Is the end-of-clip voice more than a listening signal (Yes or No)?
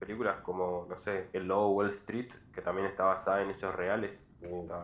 Yes